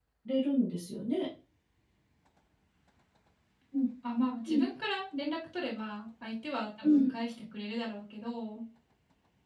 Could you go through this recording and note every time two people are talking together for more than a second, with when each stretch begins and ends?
none

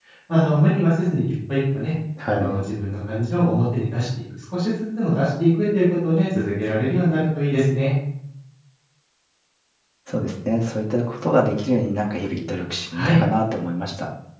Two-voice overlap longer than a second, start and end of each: none

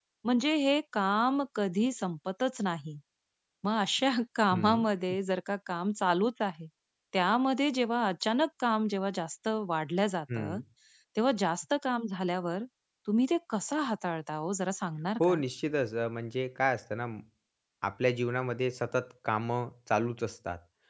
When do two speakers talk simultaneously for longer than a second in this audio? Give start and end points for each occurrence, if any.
none

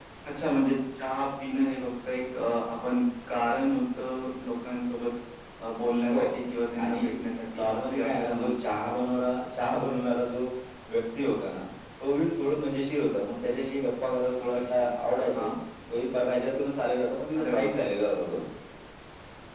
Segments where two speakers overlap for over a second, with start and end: 7.5-9.3

